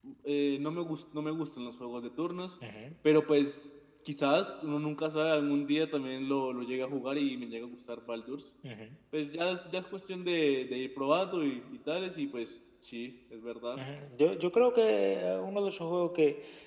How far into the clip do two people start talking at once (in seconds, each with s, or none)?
none